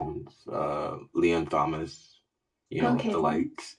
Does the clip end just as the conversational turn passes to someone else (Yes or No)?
No